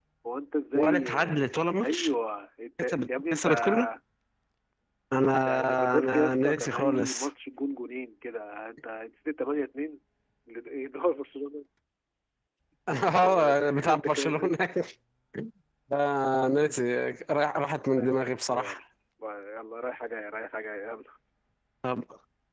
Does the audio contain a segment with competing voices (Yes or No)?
Yes